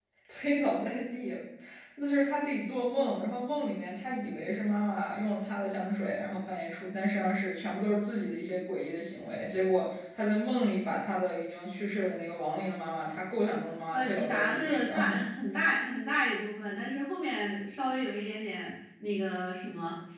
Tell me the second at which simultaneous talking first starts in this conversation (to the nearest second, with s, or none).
14 s